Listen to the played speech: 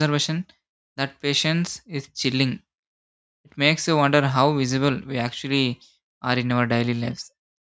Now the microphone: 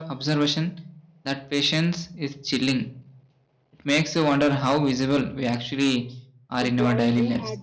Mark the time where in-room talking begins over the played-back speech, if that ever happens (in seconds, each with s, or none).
6.6 s